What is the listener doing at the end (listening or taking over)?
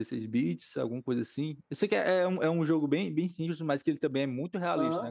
taking over